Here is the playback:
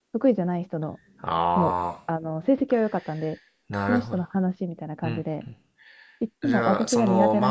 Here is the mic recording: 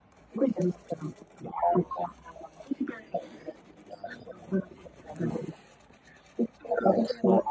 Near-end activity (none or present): none